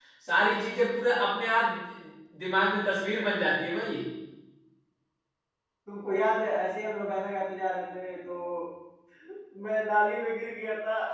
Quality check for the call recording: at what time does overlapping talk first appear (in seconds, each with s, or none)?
none